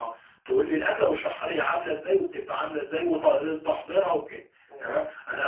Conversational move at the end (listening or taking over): listening